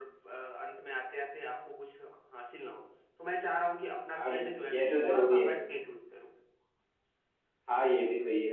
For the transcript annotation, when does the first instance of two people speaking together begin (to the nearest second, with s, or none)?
4 s